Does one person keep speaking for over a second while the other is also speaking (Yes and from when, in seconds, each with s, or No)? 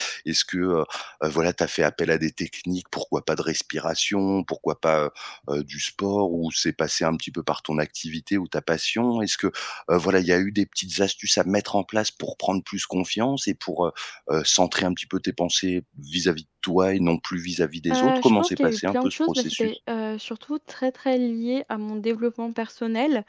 Yes, from 17.9 s